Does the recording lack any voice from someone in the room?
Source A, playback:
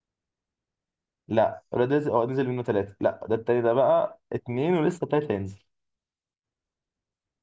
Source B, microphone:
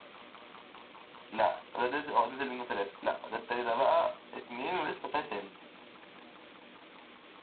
Yes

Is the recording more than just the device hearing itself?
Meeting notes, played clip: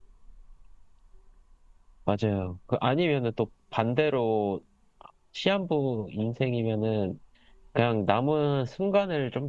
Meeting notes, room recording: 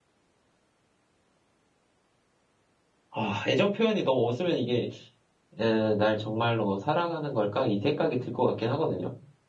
Yes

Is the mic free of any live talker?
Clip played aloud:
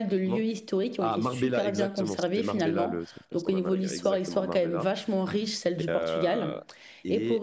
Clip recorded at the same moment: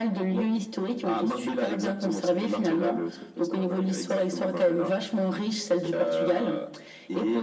Yes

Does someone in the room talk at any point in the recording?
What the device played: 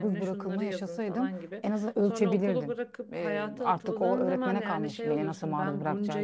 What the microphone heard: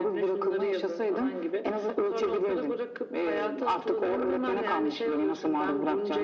No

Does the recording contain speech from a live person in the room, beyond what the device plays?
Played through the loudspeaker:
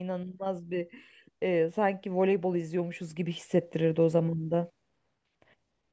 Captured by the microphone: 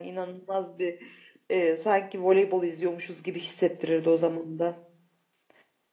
No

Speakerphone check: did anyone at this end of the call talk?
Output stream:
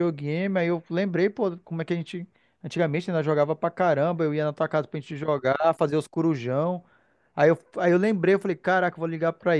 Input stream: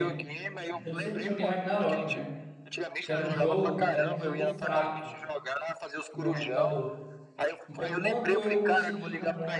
Yes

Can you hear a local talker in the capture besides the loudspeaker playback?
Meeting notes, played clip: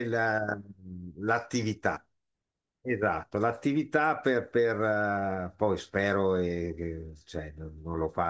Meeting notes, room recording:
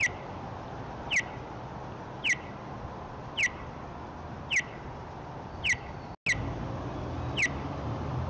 No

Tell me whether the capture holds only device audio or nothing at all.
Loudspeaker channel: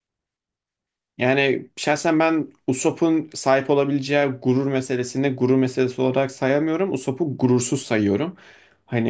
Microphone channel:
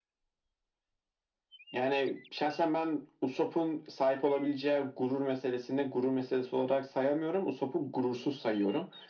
Yes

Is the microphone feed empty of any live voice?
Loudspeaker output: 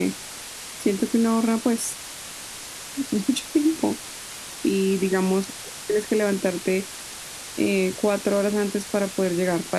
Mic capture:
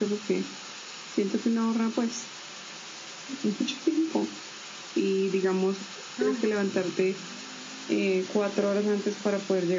No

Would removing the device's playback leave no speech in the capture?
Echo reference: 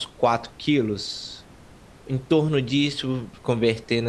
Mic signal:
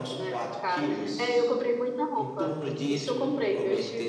No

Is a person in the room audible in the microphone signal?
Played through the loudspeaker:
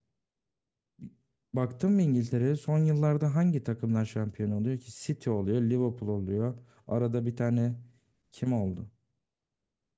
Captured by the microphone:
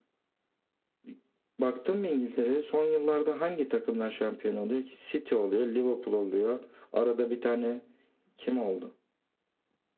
No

